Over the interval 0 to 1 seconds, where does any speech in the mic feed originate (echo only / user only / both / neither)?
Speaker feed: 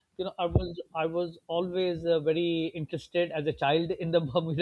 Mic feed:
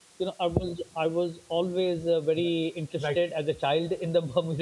echo only